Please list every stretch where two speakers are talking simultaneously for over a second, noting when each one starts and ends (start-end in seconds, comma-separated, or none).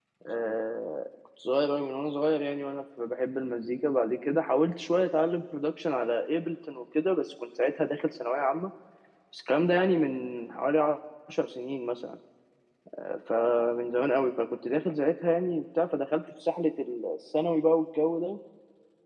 none